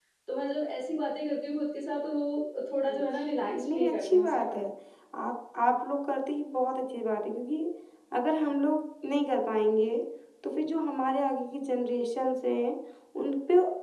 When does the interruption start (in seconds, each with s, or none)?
2.9 s